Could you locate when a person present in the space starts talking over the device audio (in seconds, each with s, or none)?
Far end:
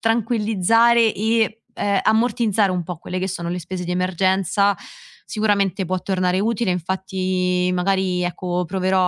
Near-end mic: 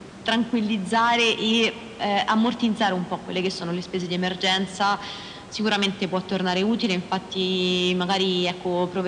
none